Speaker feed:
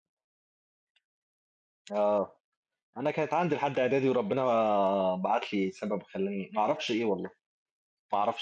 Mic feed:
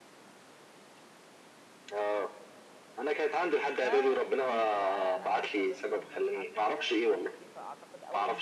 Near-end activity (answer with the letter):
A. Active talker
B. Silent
A